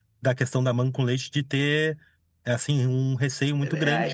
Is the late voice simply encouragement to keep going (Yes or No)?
No